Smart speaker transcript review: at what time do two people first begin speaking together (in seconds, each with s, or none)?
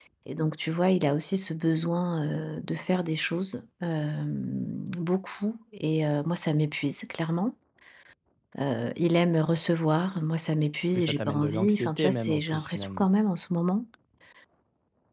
11.0 s